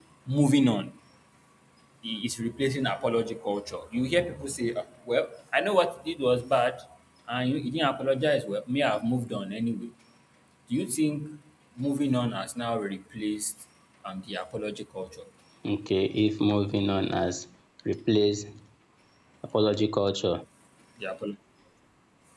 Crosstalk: none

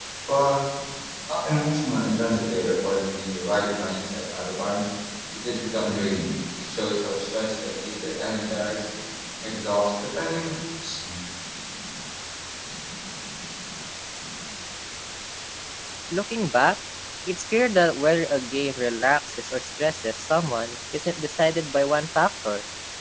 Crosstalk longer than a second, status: none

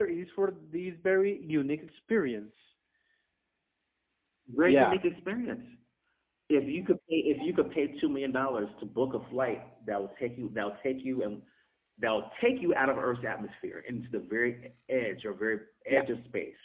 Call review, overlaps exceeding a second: none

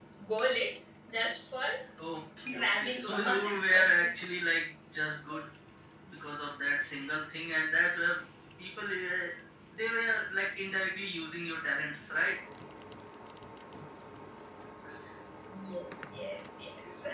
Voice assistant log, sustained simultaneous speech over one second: present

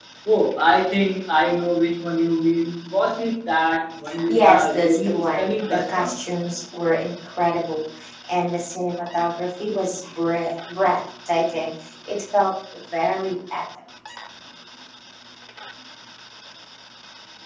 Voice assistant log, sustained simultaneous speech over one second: present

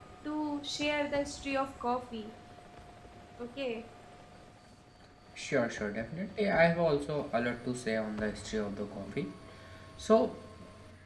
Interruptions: none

